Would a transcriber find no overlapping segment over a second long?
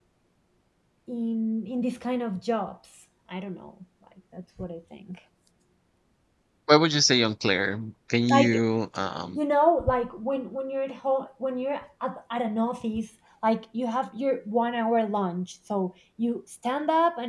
Yes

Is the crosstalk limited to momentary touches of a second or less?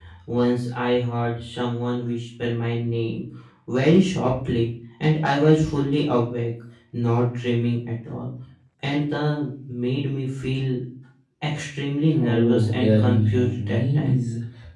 No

